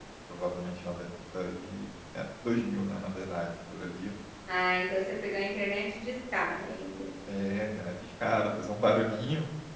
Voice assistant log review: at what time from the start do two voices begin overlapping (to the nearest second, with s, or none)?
none